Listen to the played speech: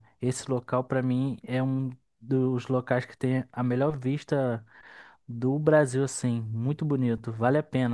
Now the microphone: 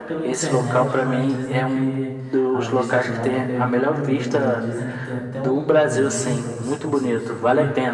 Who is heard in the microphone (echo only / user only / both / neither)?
both